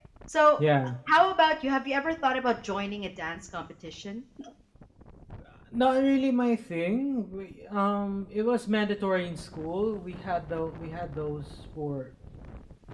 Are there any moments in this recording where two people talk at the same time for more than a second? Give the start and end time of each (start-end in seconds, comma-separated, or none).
none